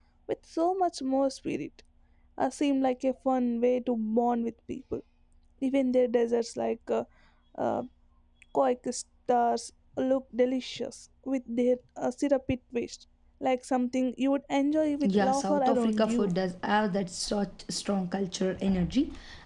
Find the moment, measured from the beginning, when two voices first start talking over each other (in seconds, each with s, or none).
15.0 s